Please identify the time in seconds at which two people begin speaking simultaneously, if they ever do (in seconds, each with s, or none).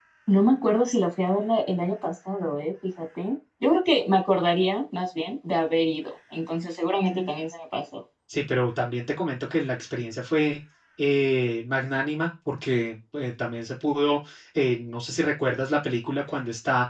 none